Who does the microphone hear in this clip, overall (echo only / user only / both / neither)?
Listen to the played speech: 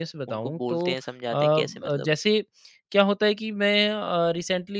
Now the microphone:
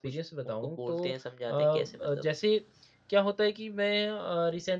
echo only